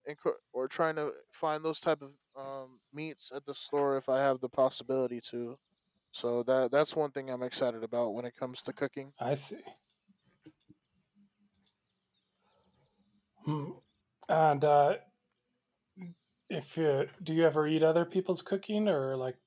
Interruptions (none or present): none